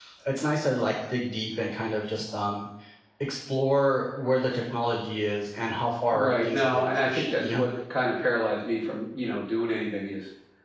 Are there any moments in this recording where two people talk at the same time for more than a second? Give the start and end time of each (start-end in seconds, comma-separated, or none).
6.1-7.7